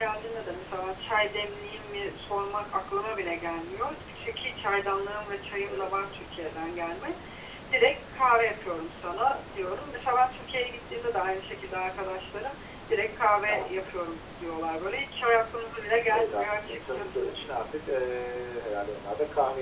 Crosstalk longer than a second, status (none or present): present